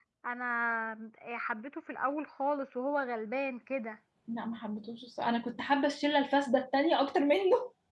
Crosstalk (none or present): none